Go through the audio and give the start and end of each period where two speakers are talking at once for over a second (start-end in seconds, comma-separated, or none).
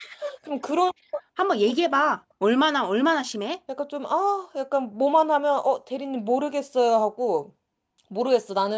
none